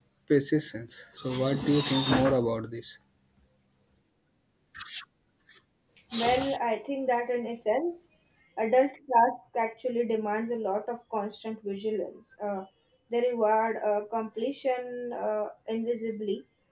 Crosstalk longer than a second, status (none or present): none